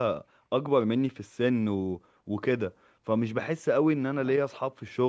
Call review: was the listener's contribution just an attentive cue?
Yes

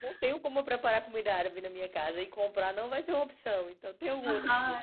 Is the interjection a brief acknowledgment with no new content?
No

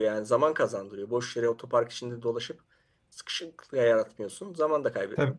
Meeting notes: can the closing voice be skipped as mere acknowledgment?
No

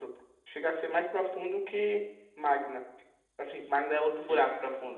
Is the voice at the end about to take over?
Yes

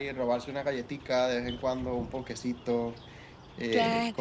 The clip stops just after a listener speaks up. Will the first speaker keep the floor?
Yes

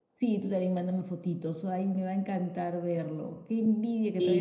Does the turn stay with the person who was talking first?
Yes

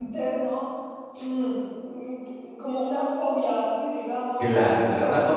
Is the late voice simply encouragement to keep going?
No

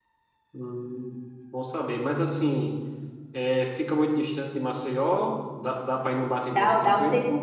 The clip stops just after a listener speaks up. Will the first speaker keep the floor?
No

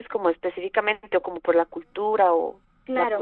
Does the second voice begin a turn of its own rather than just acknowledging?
Yes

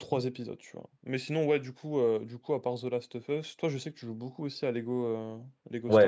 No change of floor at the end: No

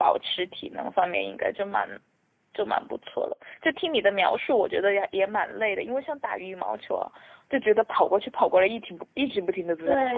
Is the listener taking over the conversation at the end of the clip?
Yes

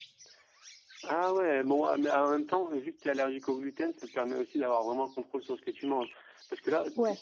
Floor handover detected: No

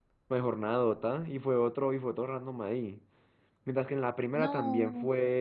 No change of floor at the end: Yes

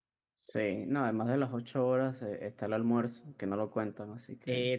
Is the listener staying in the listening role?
No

